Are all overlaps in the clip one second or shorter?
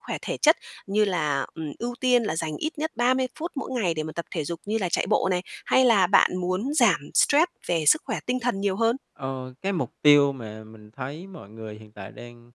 Yes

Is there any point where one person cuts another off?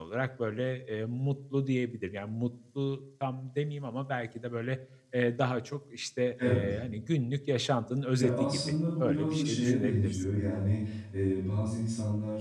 Yes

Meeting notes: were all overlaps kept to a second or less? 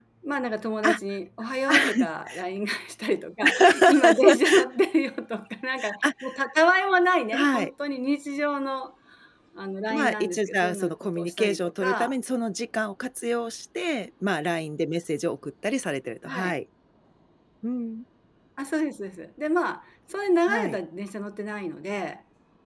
No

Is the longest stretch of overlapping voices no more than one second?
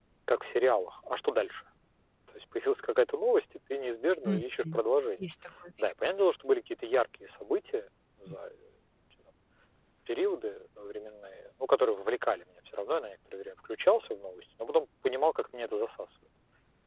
Yes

